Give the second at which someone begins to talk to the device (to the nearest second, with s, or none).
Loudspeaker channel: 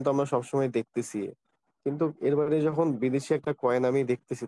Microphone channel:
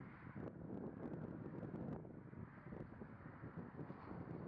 none